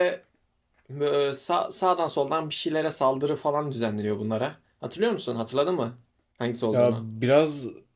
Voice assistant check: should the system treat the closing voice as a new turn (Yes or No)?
Yes